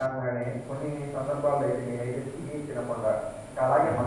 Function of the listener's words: listening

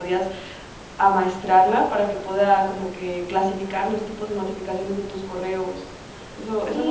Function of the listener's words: taking over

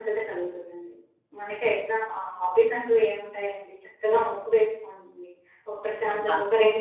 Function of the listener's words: listening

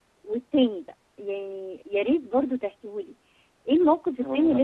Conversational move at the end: listening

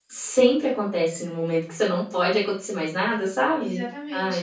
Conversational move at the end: taking over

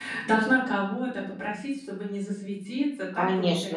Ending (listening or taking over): taking over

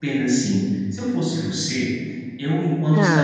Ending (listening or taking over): listening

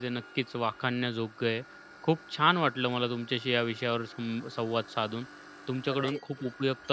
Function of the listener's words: listening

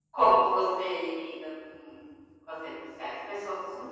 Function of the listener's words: taking over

